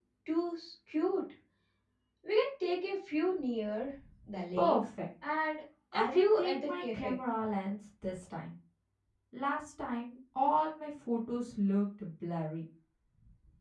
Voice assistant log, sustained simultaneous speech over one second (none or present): present